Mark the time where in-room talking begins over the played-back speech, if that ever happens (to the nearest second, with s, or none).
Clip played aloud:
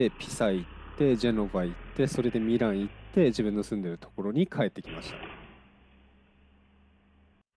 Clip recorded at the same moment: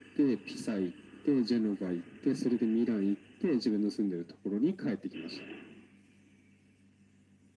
none